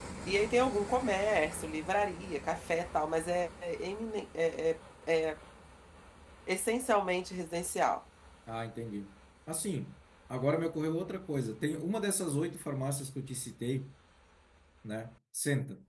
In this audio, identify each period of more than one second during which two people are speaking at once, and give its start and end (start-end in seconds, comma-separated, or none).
none